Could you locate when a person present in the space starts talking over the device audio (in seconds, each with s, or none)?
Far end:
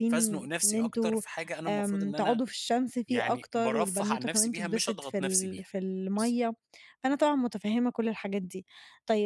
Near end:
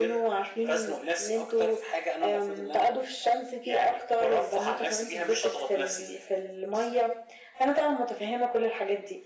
none